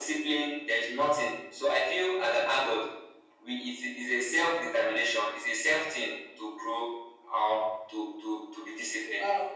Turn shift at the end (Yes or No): Yes